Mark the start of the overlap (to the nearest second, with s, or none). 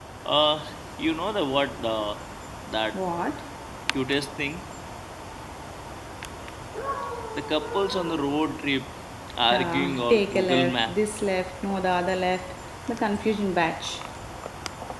10 s